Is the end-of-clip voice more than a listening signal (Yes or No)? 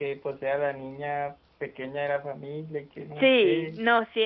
Yes